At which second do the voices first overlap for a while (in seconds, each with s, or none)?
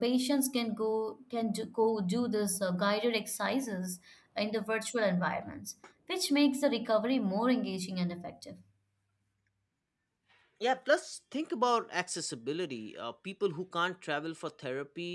none